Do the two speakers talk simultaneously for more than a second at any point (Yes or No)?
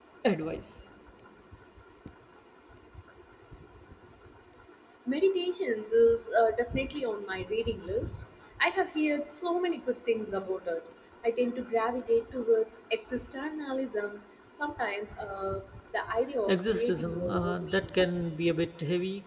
Yes